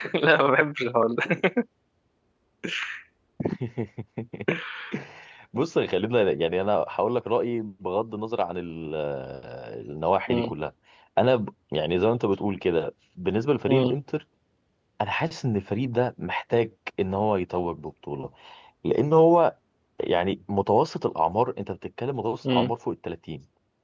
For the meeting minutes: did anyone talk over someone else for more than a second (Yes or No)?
No